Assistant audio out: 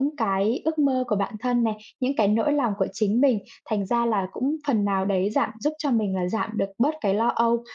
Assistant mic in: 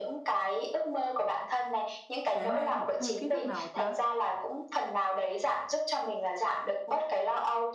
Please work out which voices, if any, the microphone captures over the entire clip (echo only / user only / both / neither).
both